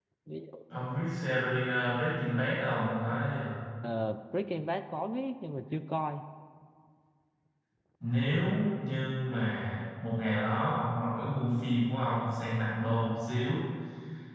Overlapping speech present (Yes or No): No